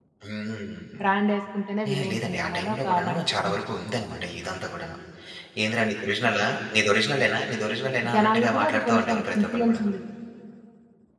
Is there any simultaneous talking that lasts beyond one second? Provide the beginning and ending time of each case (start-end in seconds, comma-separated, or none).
1.9-3.6, 8.1-9.9